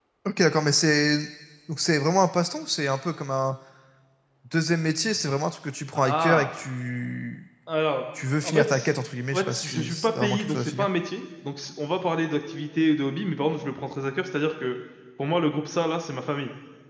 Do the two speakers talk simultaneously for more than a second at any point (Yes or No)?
Yes